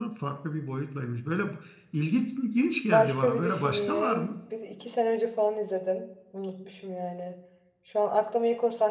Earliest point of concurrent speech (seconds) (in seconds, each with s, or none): 2.9 s